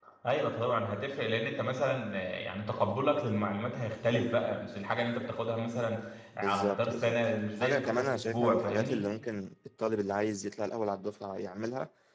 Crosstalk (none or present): present